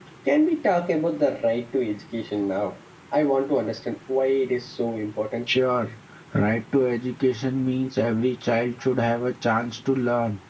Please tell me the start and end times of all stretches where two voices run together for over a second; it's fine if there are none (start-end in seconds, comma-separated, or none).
none